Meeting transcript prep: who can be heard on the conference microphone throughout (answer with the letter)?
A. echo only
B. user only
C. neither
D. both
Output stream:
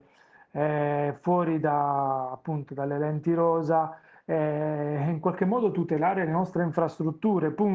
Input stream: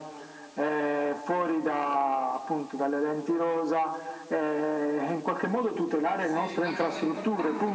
D